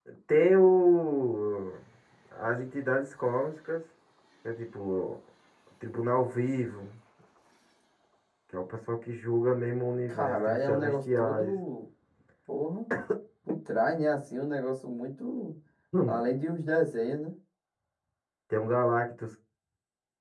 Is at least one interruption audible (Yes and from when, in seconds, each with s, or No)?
Yes, from 10.1 s